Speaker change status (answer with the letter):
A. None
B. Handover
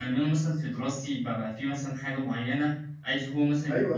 A